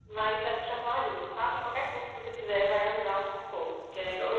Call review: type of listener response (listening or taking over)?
taking over